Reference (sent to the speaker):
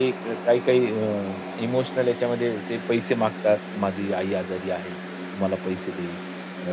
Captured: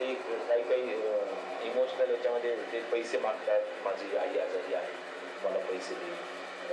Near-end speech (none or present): none